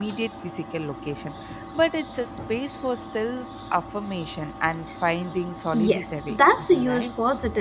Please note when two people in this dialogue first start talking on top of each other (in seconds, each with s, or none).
5.7 s